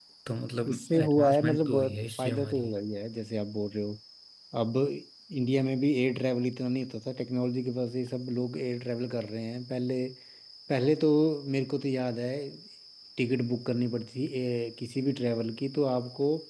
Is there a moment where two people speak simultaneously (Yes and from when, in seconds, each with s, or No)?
Yes, from 0.7 s